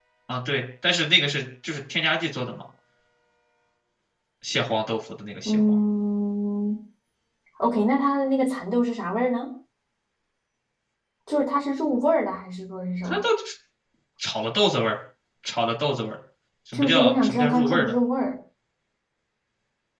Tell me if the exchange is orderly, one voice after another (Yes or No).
No